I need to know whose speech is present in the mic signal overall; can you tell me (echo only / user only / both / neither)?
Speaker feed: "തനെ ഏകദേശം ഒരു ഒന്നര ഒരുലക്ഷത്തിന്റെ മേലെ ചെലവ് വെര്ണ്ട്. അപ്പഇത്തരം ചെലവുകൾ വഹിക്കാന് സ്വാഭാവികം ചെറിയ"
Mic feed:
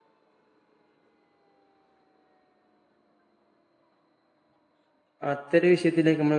user only